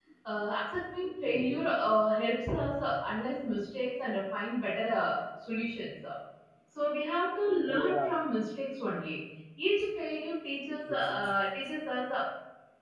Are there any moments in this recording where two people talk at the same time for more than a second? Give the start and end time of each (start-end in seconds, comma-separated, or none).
none